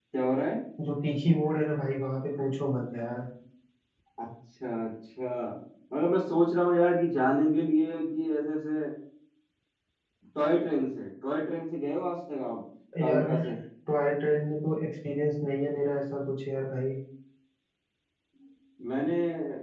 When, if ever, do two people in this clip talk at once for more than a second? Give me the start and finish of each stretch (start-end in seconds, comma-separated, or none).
none